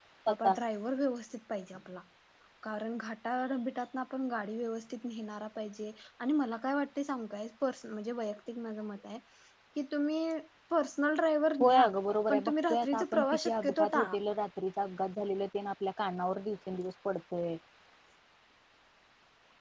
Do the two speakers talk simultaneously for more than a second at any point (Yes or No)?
Yes